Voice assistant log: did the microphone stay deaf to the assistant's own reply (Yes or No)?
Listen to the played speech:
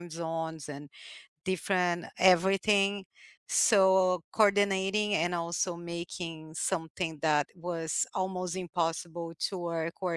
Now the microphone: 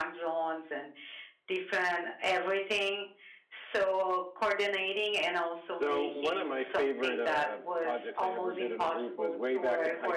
No